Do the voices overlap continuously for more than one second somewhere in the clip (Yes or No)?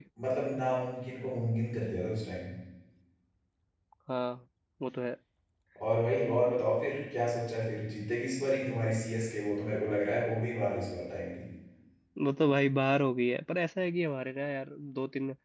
No